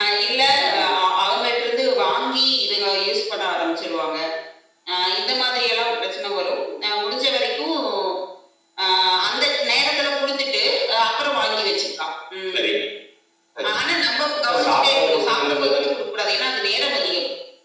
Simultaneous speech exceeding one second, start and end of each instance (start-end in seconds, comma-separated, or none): 14.4-15.9